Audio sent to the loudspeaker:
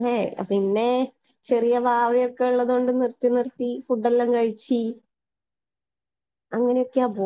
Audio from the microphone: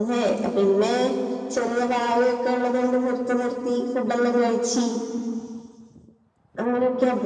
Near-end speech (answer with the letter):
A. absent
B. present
A